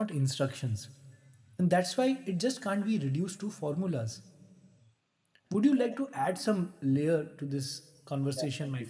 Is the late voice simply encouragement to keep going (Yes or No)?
No